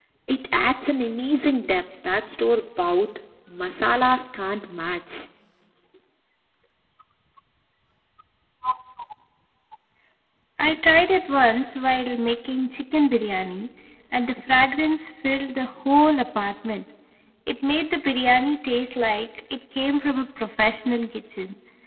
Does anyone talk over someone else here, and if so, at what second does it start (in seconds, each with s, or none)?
none